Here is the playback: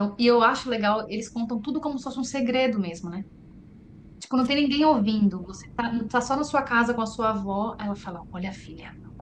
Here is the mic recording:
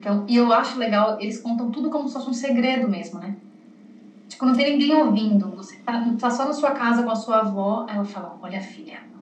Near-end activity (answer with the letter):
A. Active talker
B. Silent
B